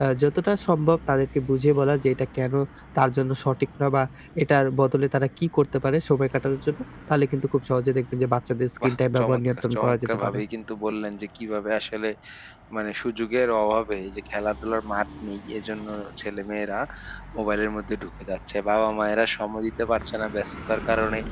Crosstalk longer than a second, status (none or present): present